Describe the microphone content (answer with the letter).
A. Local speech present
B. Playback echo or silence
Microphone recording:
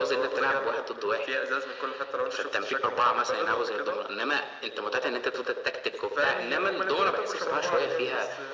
A